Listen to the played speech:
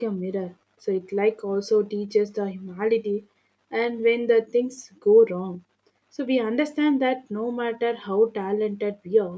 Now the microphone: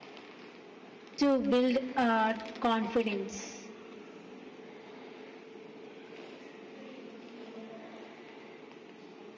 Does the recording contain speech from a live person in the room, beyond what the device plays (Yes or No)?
Yes